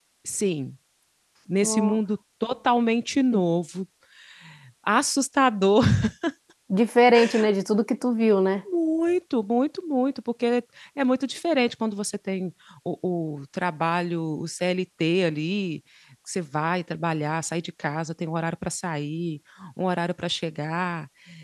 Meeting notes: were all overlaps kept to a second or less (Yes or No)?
Yes